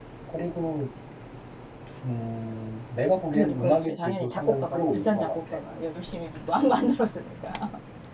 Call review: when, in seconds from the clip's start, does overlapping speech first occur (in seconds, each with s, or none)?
3.3 s